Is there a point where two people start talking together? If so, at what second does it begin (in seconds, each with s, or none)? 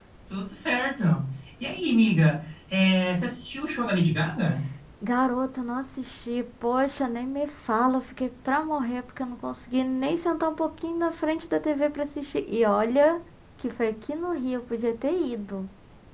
none